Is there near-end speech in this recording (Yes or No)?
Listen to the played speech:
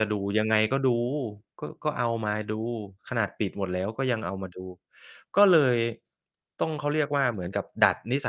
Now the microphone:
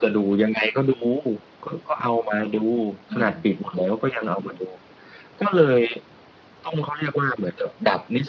Yes